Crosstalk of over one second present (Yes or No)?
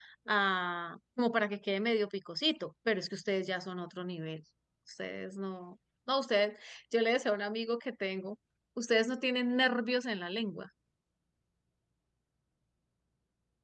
No